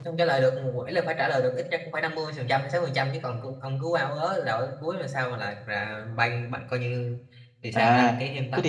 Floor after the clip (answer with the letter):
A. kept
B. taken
B